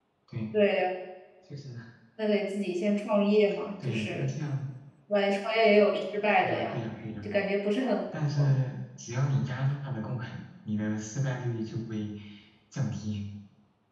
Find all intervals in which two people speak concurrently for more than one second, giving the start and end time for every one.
none

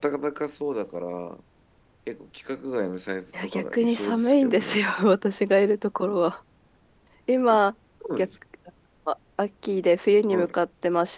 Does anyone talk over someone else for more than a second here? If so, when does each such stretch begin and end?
3.3-4.8

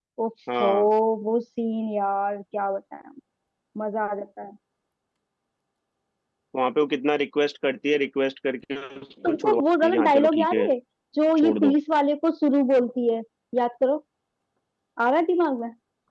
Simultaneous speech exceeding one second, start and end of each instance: 9.3-10.7

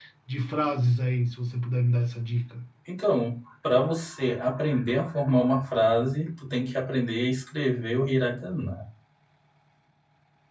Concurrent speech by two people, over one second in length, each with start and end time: none

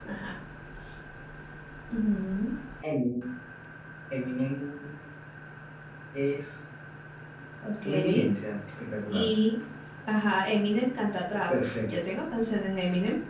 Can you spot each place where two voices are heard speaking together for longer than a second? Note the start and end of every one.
none

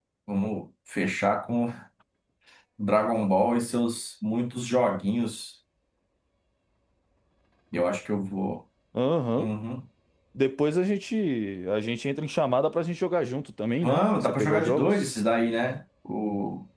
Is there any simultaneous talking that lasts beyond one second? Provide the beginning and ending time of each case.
13.8-15.1

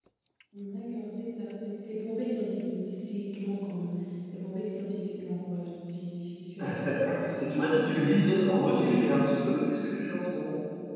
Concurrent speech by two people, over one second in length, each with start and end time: none

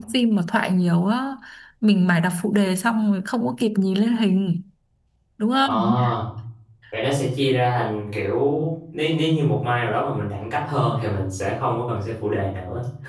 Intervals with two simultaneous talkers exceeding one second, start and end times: none

